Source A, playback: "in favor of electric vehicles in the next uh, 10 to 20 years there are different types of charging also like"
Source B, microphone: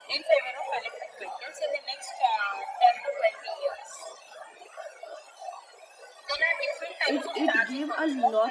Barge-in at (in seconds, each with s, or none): 7.0 s